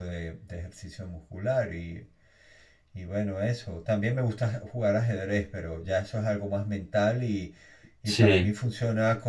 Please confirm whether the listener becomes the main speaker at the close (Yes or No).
No